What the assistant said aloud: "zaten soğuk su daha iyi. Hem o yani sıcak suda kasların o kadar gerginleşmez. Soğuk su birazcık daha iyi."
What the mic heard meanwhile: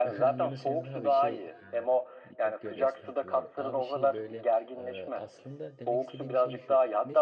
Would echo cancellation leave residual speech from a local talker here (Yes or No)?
Yes